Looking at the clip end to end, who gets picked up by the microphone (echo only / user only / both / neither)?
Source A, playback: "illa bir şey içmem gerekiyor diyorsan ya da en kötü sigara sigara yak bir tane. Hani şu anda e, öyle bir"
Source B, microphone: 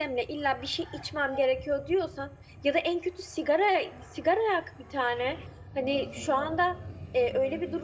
both